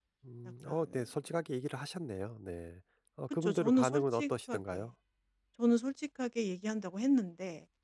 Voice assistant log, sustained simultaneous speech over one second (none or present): present